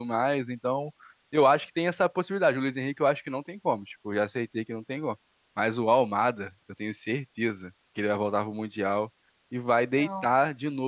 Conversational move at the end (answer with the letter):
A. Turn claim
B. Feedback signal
B